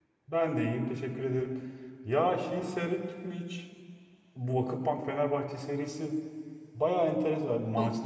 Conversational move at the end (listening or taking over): listening